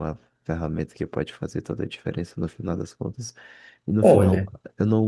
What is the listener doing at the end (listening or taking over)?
listening